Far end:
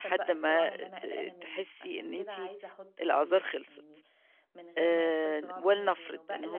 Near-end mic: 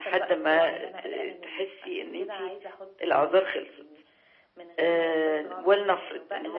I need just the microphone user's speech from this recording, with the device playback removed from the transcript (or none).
none